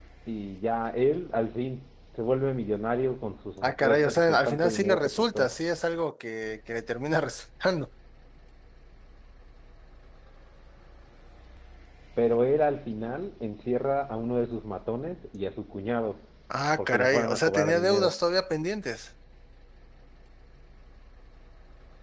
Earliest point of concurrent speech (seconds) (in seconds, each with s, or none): 3.6 s